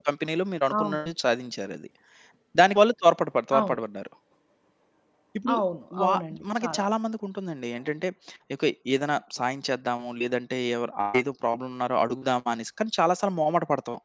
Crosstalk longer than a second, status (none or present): none